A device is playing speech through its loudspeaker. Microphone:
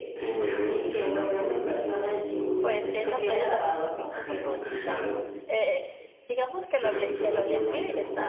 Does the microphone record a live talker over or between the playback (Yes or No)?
Yes